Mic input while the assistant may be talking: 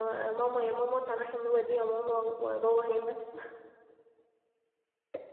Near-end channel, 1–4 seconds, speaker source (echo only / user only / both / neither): user only